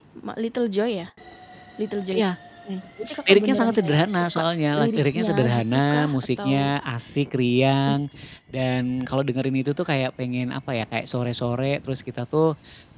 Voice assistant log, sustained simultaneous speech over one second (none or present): present